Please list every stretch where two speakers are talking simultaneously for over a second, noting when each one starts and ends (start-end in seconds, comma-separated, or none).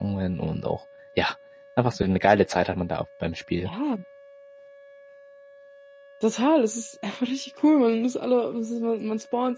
none